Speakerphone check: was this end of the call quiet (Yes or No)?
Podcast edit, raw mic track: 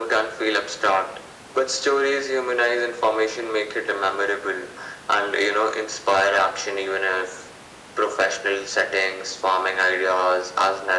Yes